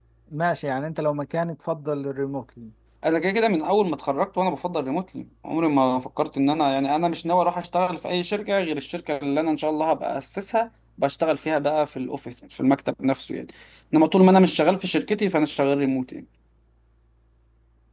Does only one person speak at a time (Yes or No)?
Yes